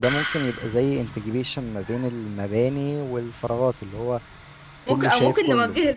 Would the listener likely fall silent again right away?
No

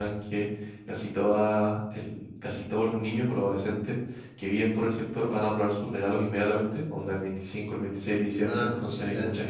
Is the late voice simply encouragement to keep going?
Yes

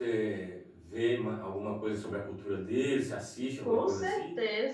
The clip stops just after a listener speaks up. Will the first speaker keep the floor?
No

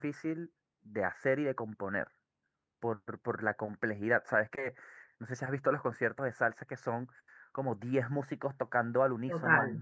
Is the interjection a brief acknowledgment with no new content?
Yes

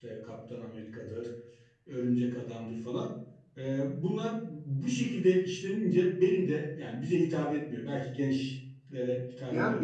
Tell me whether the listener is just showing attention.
No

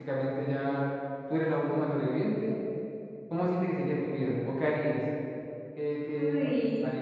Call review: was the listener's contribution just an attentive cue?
No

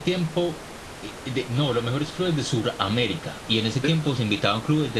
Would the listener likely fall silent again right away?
Yes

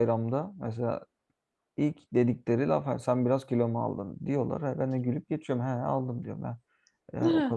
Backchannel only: Yes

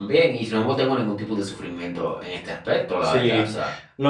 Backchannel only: No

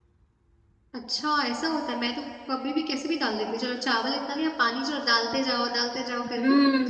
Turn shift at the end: Yes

